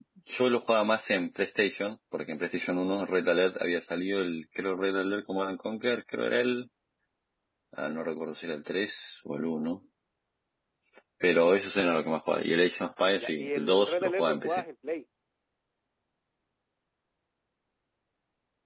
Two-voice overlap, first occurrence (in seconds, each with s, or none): 13.2 s